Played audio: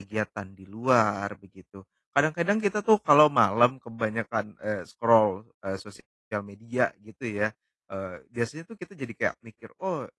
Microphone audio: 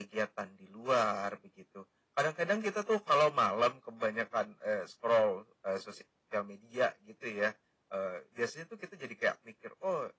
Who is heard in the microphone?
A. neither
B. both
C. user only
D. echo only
D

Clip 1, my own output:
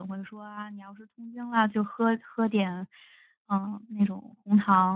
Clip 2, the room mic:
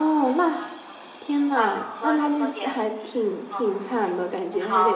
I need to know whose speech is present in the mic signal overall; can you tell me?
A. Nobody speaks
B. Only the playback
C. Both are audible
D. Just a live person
C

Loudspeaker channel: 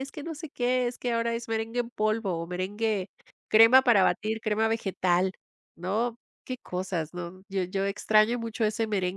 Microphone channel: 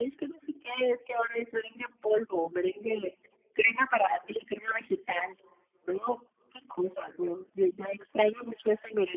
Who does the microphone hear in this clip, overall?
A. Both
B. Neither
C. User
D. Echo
D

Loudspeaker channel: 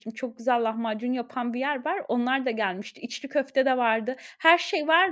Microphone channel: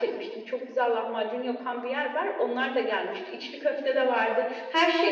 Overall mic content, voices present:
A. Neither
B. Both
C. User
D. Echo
D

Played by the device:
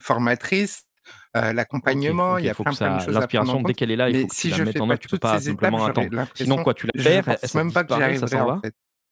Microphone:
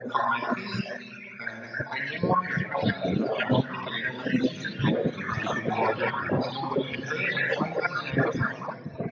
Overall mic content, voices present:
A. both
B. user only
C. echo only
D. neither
A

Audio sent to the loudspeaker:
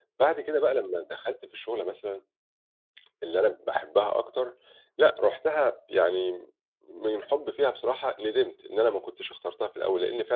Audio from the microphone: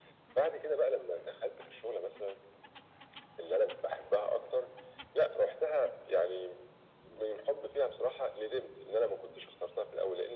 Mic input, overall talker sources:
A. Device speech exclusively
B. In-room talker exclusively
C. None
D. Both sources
A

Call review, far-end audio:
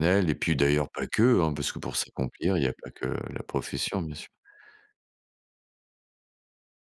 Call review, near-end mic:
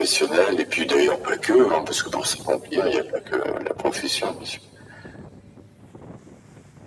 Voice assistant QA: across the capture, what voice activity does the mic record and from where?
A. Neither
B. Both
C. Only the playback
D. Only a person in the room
C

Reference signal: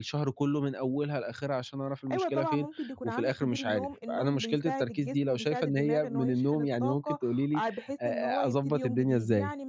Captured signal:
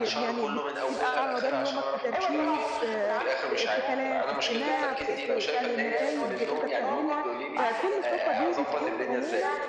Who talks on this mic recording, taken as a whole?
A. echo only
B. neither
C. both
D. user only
C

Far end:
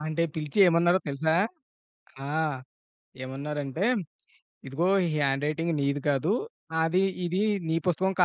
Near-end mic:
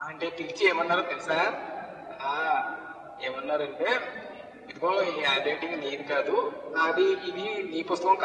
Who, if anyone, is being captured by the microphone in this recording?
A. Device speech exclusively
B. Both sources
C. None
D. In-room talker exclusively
A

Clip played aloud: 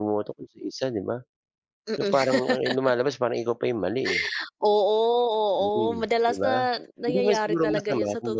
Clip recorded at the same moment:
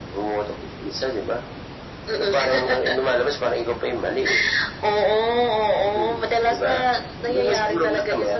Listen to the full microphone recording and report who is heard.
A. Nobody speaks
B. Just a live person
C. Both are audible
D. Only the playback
D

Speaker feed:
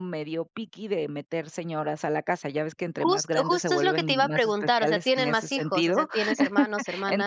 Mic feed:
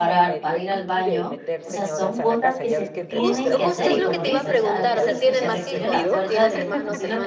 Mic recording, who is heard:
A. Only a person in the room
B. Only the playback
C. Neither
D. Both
D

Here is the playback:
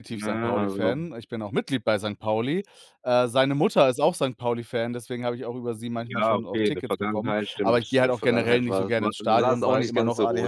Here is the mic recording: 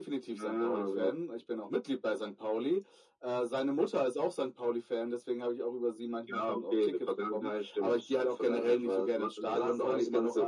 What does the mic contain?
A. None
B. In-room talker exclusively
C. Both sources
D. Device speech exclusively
D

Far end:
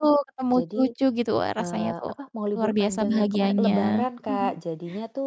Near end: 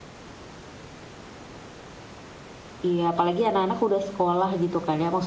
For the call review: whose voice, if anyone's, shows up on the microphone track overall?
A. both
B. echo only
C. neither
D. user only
D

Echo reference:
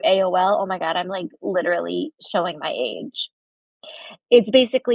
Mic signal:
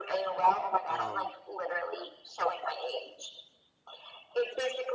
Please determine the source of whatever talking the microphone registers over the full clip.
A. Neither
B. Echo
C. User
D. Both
D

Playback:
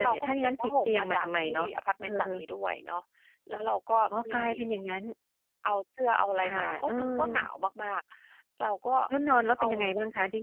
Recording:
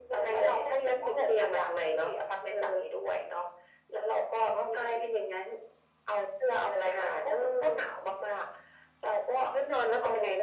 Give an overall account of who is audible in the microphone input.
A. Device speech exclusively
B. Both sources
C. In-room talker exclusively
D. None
A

